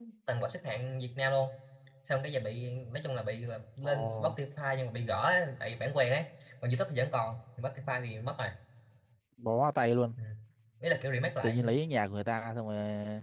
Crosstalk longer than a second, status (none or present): none